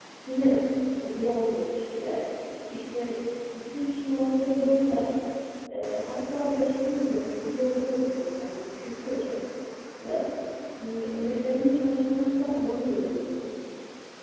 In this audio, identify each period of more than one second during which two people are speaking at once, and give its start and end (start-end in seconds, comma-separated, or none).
none